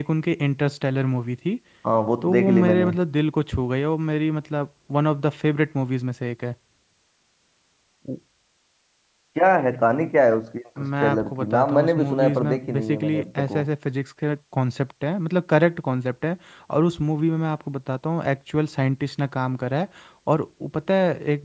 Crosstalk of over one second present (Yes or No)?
Yes